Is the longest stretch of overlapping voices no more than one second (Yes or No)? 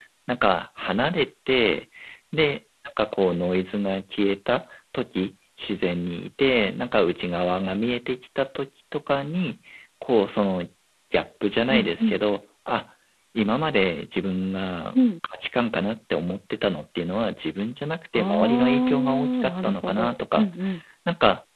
No